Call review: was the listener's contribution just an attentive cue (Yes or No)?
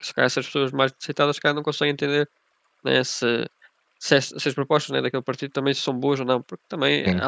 Yes